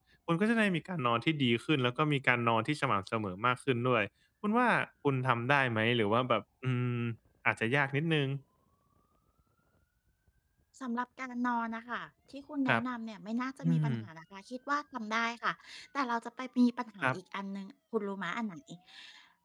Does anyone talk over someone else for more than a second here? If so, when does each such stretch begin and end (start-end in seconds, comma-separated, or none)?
none